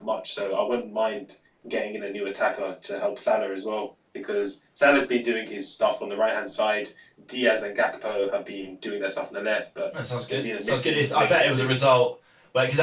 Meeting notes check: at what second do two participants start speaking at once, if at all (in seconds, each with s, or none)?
10.3 s